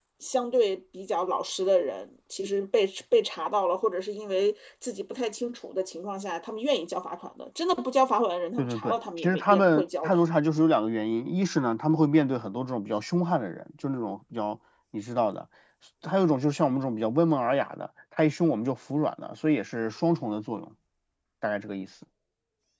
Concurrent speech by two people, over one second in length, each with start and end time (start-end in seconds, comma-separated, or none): 8.6-10.2